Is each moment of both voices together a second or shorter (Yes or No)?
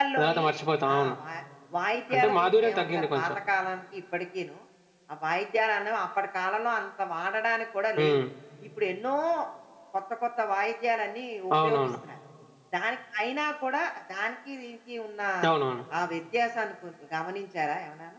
No